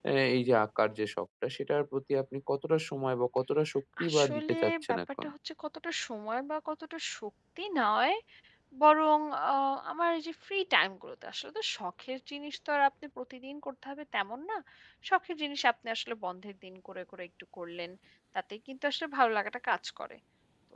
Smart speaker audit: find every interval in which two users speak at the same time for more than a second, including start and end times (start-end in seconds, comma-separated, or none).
4.0-5.3